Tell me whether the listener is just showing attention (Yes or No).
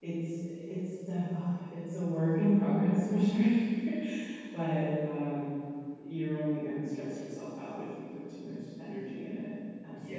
No